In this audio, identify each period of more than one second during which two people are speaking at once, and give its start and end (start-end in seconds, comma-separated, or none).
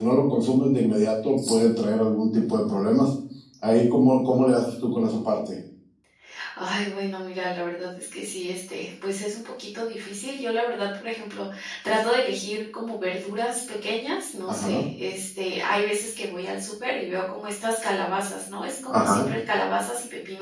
none